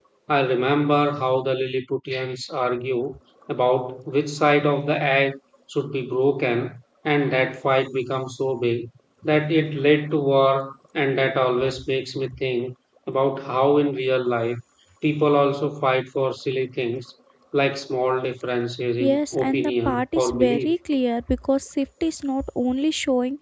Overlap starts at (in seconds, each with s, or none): 19.0 s